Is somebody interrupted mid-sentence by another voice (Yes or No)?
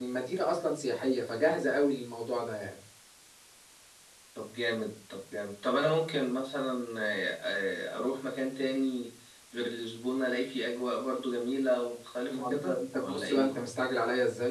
Yes